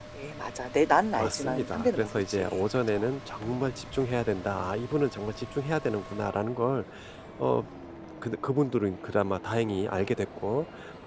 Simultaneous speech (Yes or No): Yes